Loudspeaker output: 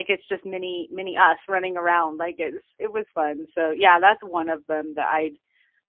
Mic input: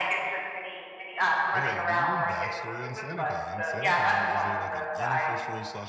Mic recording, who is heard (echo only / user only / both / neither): both